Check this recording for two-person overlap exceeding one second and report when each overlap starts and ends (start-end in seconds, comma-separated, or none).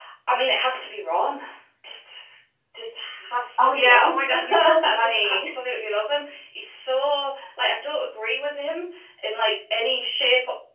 3.6-5.5